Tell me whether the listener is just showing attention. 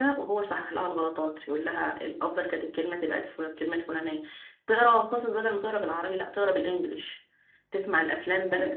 Yes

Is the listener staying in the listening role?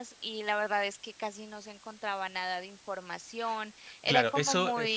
No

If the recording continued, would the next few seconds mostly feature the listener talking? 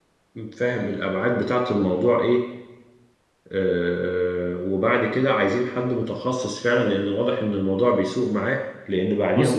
No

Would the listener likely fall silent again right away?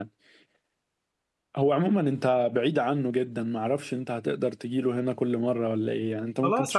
No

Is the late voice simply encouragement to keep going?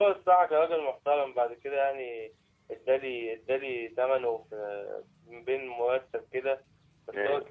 Yes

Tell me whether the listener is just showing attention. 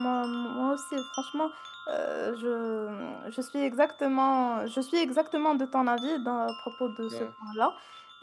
Yes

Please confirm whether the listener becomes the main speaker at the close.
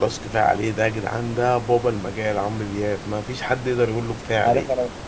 Yes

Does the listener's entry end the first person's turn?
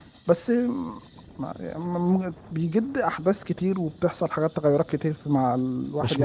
No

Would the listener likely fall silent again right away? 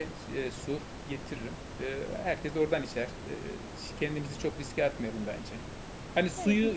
Yes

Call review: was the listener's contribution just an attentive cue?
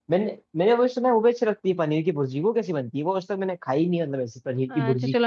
No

